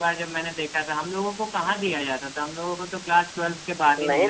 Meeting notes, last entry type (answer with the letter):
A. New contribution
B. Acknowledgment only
A